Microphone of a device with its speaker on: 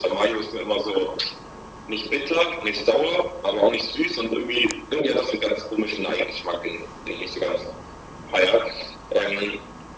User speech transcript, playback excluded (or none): none